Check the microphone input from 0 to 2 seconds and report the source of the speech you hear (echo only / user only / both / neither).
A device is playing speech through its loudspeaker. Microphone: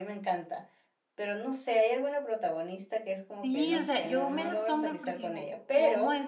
echo only